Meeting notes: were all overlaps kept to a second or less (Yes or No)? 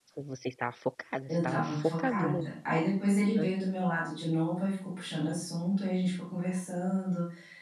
No